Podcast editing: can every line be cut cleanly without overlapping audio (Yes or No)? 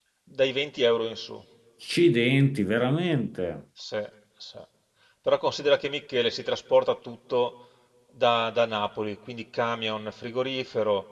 Yes